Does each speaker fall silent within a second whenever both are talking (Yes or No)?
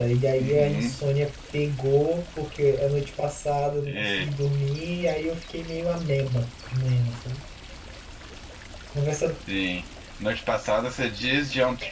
Yes